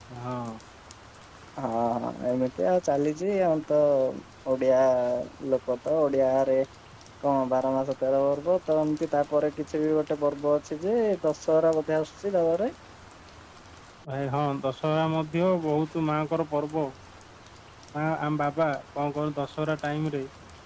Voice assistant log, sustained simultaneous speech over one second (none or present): none